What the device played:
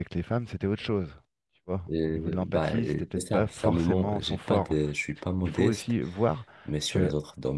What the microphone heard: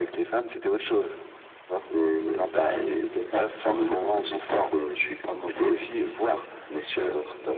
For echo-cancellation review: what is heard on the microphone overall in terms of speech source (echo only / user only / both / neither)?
echo only